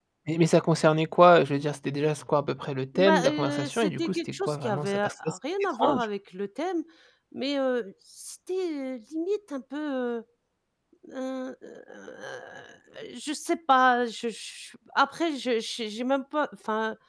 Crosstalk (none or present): present